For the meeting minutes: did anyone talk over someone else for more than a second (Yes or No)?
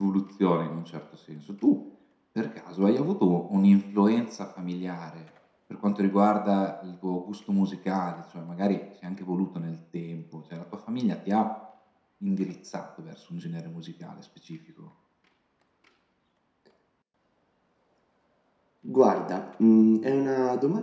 No